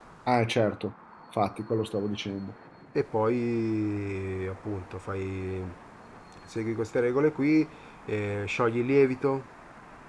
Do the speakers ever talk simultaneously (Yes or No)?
No